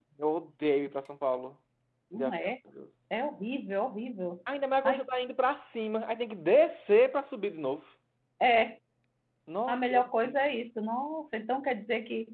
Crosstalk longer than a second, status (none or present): none